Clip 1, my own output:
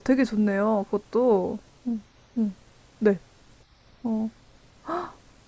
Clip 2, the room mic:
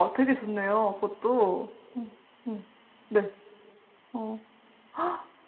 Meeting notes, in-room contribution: none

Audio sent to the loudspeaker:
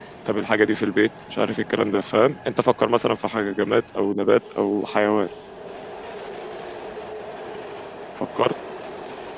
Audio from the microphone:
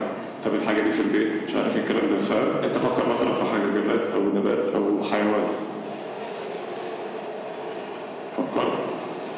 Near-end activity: none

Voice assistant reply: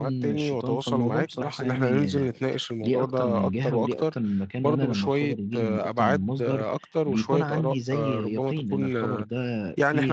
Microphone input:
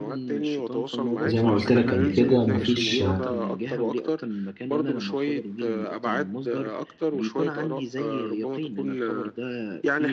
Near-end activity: present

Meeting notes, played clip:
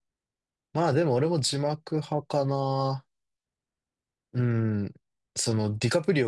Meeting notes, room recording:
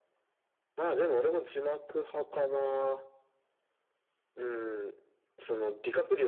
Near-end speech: none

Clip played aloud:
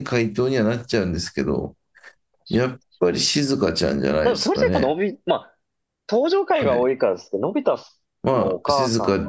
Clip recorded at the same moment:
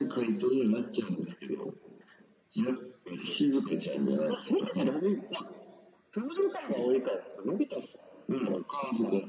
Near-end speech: none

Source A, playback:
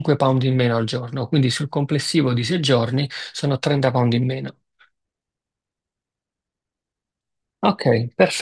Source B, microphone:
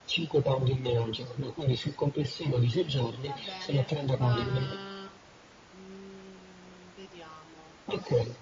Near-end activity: present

